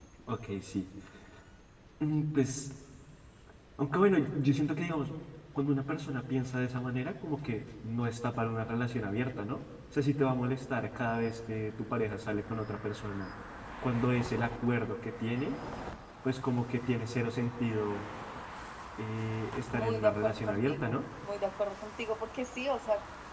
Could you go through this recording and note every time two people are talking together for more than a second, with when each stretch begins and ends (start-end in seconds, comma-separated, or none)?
19.7-21.0